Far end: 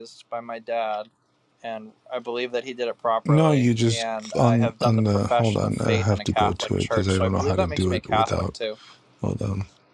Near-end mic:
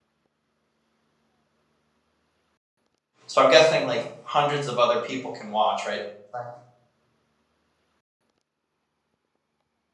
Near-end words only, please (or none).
So I'm guessing like hundreds of other people can watch, right? Right.